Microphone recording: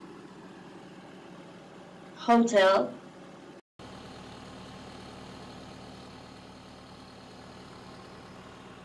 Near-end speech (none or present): present